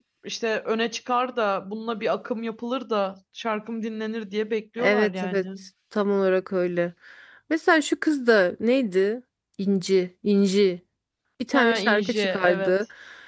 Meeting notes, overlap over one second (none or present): present